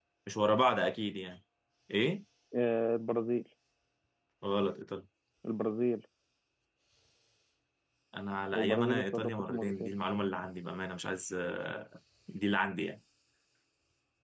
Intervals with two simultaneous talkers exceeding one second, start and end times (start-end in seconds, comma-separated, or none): 8.5-9.9